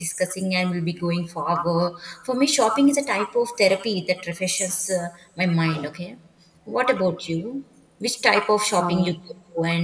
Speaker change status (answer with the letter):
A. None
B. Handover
A